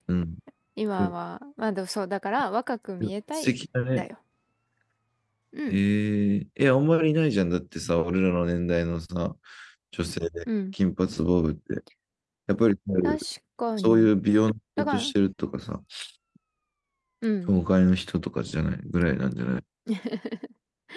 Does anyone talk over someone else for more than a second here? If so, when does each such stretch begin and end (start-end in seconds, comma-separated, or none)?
none